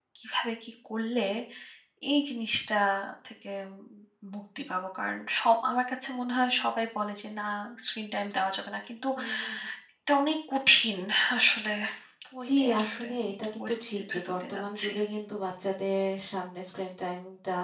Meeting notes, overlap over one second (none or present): present